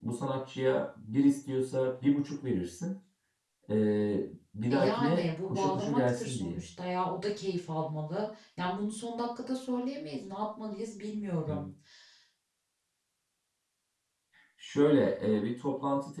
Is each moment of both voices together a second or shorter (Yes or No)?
No